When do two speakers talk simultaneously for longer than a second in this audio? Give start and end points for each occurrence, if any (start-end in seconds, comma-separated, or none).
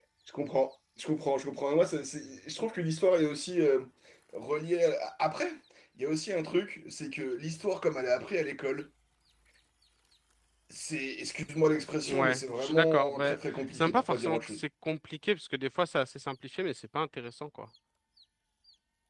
12.0-14.6